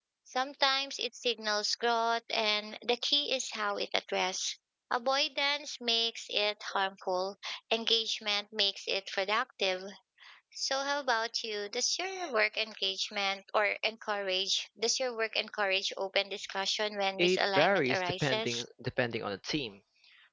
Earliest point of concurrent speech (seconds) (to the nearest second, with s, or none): 17 s